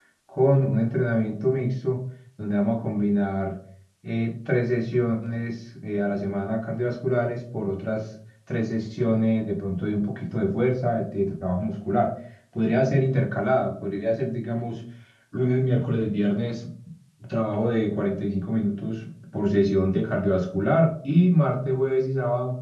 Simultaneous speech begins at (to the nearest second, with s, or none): none